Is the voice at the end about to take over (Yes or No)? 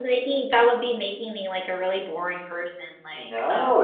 Yes